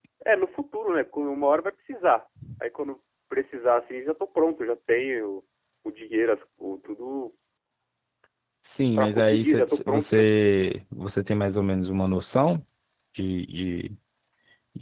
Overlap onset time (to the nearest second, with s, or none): 9 s